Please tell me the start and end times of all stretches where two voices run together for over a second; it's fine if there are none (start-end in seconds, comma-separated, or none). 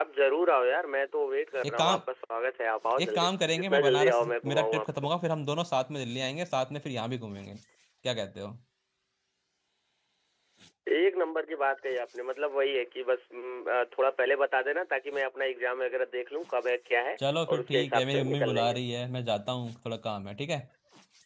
3.0-5.1, 17.5-18.8